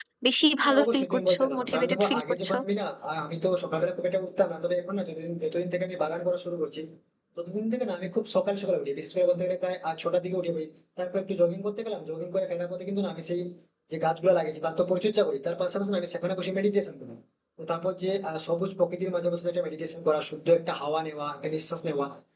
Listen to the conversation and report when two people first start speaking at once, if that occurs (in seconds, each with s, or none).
0.6 s